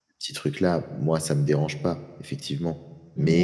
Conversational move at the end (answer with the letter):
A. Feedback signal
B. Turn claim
A